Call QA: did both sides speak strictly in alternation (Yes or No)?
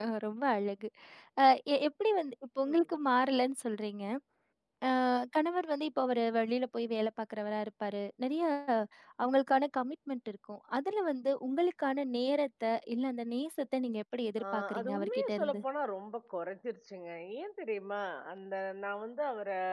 No